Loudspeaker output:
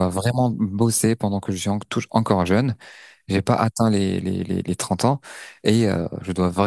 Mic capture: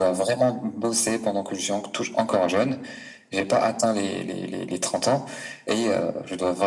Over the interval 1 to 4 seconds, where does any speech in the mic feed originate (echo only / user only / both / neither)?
echo only